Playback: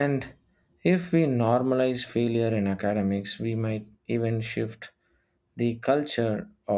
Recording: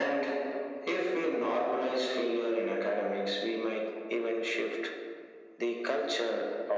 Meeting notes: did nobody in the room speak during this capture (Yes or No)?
Yes